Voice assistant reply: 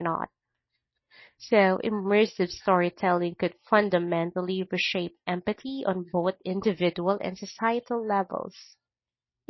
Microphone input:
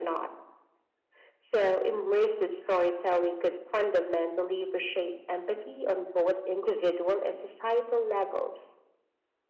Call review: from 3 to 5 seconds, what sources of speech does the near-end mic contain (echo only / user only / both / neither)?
echo only